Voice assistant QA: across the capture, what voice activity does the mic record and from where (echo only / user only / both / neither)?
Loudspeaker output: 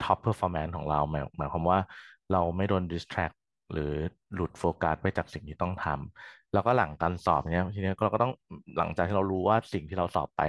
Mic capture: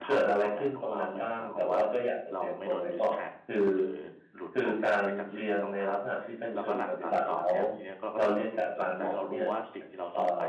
both